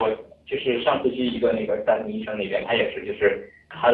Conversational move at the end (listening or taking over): listening